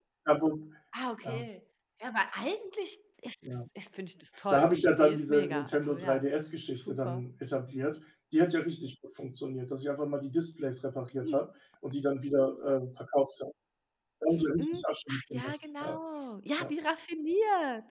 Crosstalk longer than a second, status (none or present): present